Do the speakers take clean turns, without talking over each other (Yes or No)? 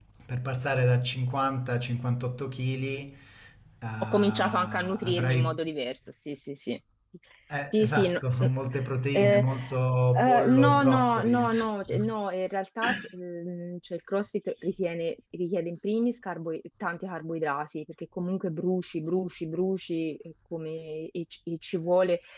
No